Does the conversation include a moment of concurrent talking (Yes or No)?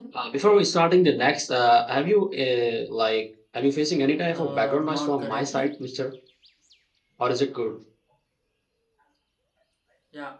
Yes